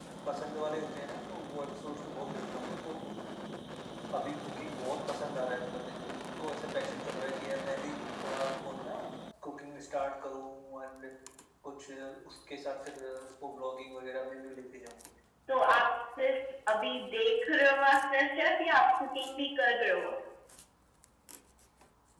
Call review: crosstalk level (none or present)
none